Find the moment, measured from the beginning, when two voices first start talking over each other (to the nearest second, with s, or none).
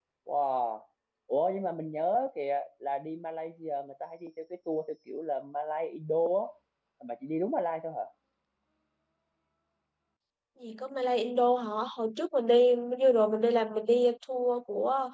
none